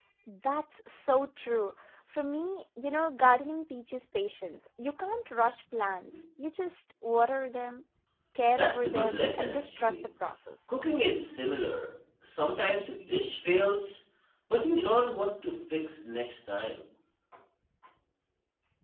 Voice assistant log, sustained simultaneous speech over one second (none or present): present